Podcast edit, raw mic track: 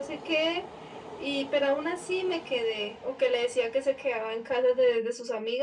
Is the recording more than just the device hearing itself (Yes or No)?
No